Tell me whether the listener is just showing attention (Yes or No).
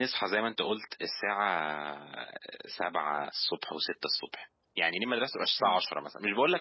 Yes